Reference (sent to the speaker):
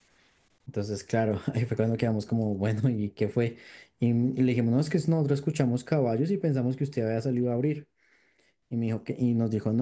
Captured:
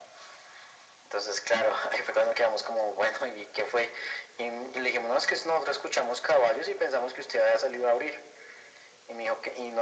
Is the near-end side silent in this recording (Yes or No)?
Yes